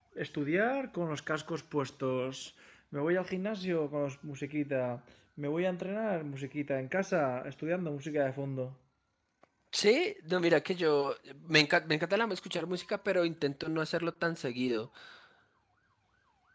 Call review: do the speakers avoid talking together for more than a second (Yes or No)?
Yes